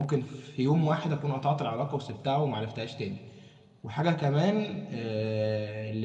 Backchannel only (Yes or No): Yes